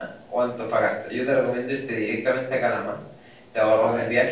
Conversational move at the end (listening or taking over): listening